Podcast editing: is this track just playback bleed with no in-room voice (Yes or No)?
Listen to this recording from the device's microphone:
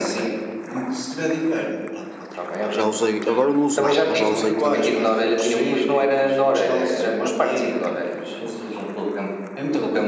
No